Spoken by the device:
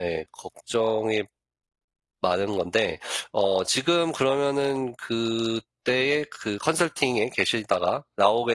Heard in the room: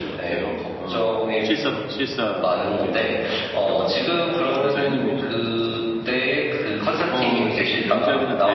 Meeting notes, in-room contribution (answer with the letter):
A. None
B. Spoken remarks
B